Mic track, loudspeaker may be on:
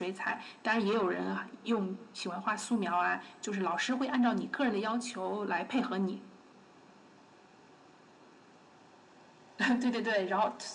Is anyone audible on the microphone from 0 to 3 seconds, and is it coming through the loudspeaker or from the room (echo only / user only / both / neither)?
echo only